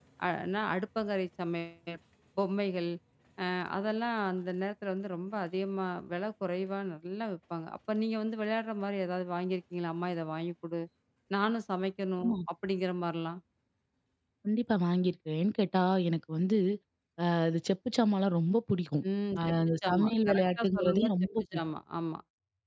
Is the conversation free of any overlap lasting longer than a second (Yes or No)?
No